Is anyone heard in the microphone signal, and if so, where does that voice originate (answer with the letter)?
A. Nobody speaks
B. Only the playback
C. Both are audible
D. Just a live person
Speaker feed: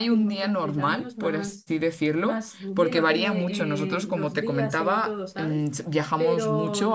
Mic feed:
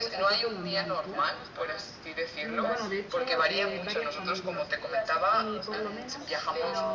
C